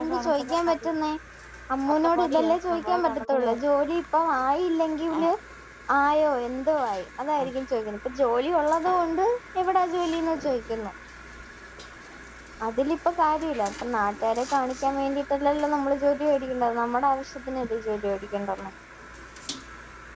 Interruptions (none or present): present